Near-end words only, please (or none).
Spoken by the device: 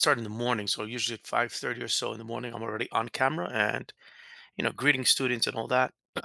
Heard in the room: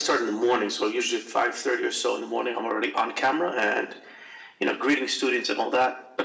none